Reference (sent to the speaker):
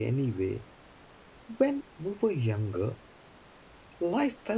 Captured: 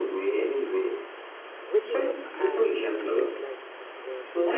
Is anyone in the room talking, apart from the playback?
Yes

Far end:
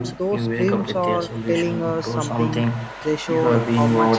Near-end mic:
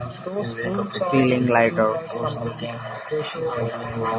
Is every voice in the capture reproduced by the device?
No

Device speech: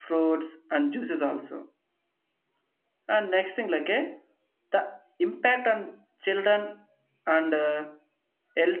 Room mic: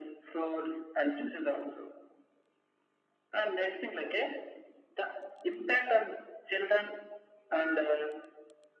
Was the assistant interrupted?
No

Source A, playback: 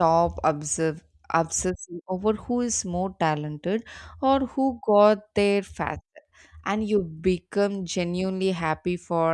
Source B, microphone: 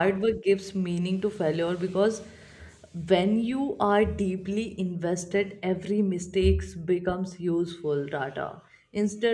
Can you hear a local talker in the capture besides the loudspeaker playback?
Yes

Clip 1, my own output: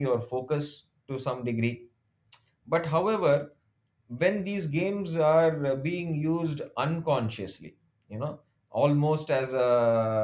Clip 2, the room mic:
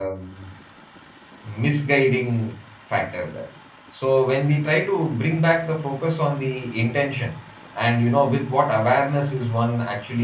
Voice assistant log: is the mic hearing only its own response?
No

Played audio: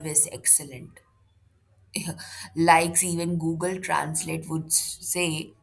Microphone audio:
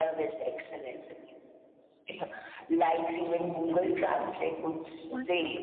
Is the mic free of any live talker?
No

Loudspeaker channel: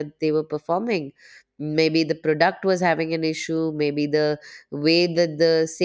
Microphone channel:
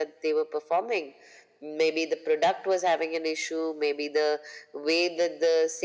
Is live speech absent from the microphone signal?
Yes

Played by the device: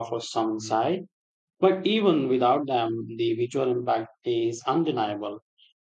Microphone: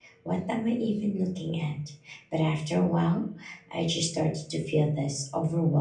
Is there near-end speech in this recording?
Yes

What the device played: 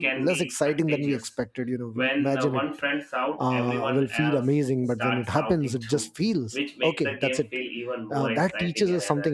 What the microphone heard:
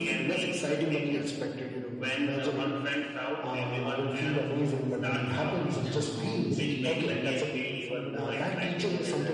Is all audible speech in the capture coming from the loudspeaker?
No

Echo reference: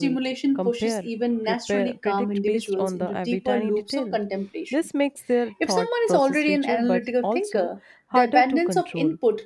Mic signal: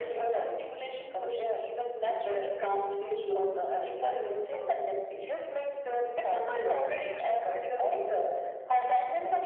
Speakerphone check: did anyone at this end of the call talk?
No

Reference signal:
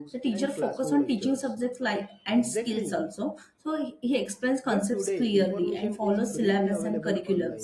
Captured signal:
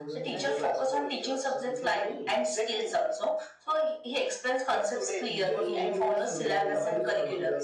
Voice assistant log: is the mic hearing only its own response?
No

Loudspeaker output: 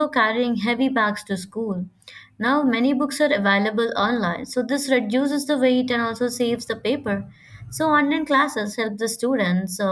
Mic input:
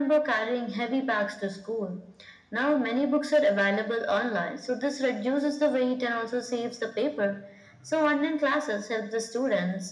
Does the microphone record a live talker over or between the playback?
No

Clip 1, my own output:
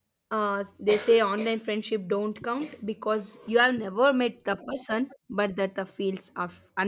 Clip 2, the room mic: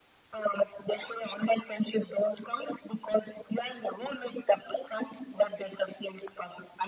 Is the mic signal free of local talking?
Yes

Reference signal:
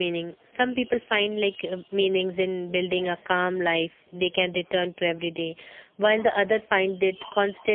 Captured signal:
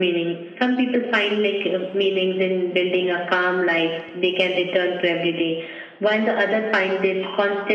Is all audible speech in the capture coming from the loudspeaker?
Yes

